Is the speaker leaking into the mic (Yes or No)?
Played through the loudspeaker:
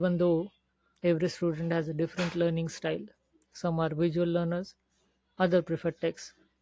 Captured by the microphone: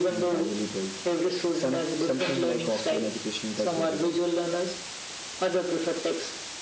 Yes